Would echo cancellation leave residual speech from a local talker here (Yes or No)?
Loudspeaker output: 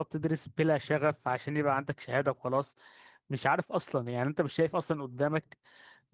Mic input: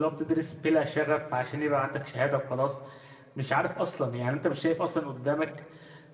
No